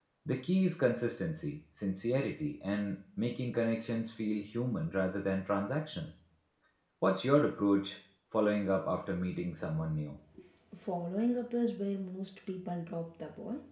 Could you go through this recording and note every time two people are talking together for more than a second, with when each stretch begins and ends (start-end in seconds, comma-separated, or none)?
none